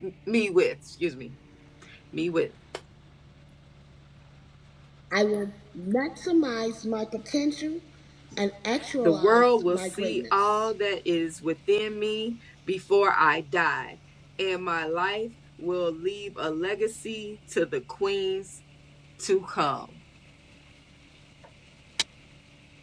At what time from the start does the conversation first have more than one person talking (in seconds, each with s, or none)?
9.0 s